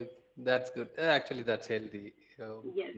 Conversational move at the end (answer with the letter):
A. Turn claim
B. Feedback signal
A